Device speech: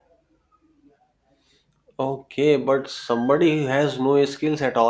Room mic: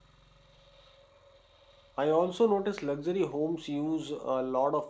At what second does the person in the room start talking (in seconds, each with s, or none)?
1.9 s